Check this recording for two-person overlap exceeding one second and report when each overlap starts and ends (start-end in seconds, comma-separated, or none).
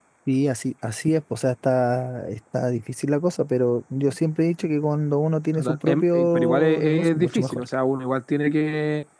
5.6-7.6